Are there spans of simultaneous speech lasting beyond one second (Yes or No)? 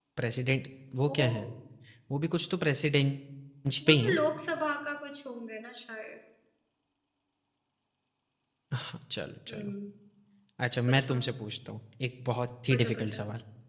No